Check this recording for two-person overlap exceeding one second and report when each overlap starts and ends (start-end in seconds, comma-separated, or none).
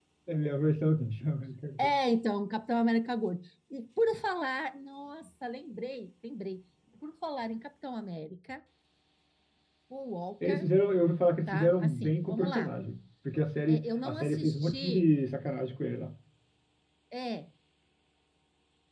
11.5-12.7, 13.7-15.1